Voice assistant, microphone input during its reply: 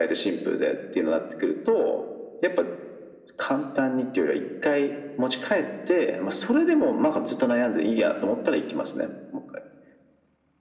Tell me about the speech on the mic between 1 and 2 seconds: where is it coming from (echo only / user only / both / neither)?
echo only